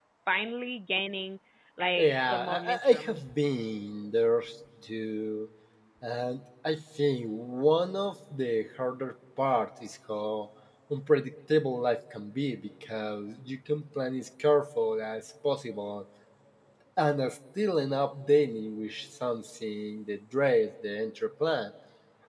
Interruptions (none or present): present